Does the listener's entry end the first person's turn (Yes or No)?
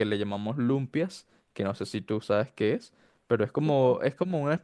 No